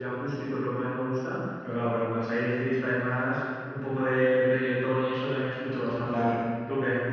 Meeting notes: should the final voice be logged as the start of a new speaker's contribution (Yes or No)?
Yes